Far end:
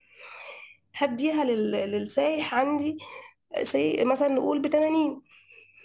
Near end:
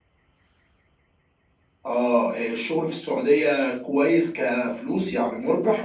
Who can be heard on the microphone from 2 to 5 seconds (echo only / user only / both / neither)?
user only